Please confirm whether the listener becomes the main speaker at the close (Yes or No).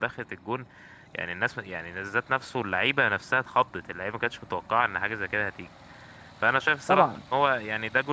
No